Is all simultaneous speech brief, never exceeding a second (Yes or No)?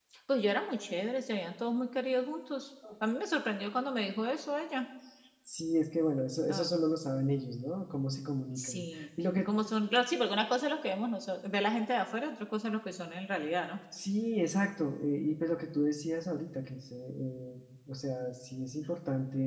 Yes